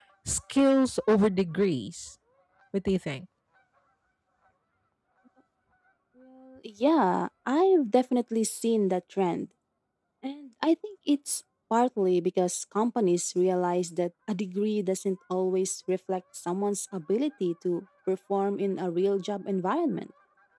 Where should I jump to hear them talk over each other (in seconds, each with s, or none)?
none